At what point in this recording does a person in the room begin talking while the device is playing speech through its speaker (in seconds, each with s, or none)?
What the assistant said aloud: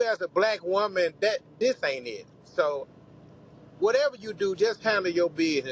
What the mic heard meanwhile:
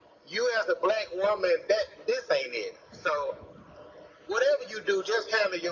none